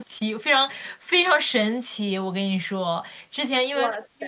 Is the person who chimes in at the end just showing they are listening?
Yes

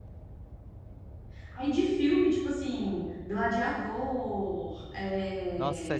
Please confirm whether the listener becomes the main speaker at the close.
Yes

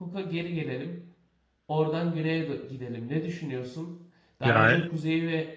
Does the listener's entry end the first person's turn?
No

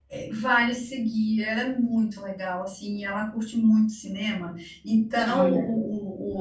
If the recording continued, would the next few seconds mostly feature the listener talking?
No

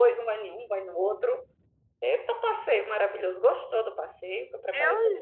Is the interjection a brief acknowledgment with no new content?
No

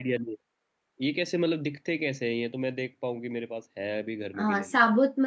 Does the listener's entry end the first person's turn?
Yes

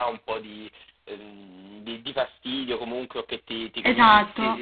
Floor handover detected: No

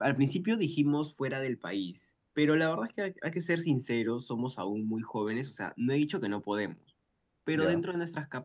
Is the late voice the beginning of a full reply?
No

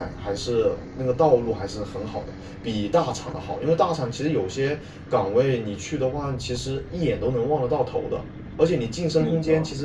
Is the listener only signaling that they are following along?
Yes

